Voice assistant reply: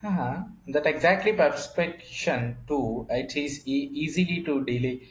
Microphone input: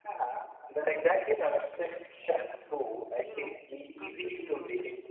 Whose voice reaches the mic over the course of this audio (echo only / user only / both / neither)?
both